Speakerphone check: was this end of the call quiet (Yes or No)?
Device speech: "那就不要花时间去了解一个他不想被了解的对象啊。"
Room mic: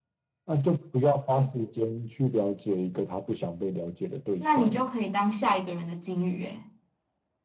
No